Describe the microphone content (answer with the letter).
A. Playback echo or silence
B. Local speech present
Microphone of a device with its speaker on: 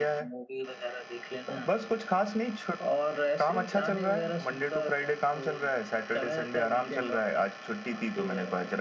A